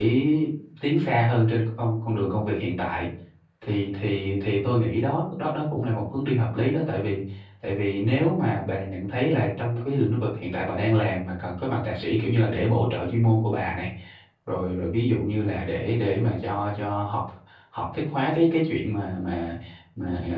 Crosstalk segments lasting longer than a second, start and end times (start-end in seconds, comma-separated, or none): none